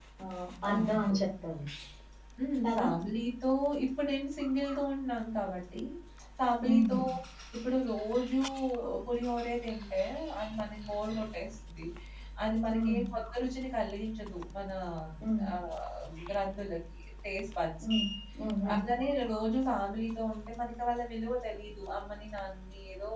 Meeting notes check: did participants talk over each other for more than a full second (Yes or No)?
No